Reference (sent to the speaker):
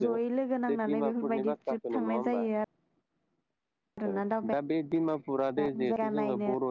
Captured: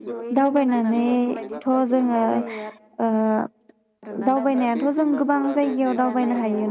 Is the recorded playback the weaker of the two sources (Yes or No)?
Yes